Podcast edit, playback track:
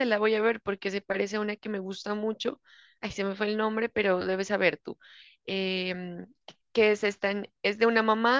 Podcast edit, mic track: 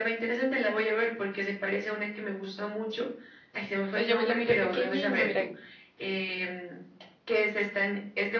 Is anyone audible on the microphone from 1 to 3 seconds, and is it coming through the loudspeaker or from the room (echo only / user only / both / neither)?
echo only